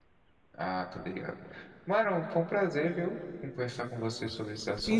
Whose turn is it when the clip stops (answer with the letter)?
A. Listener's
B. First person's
A